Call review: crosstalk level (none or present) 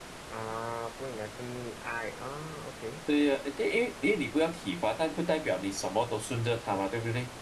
none